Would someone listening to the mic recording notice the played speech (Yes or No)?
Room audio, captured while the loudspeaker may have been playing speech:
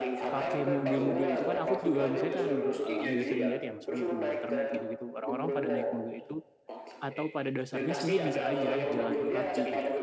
Yes